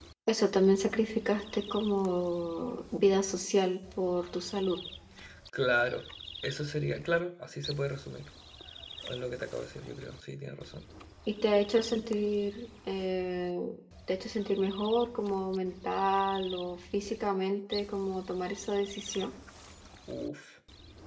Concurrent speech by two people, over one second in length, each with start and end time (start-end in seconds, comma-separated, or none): none